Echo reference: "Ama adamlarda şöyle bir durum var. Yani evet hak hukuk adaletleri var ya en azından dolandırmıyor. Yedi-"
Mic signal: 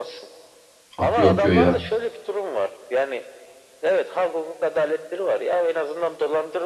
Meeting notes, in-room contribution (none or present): present